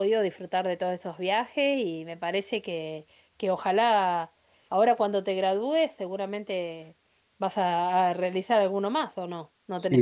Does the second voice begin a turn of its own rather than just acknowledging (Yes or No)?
Yes